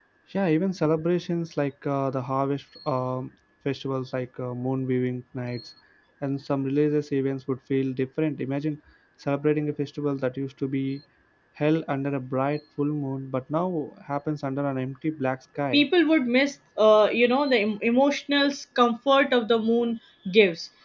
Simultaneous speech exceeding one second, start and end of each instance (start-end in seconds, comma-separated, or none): none